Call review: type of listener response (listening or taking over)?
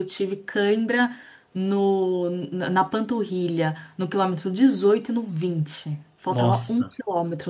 listening